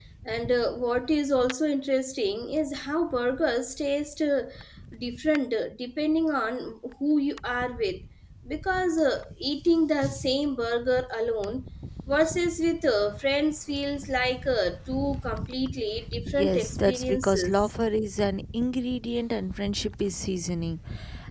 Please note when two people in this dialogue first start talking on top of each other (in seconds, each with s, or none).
16.3 s